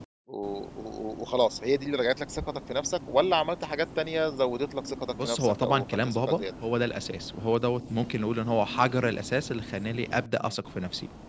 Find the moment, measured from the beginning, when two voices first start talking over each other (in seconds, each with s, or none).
5.2 s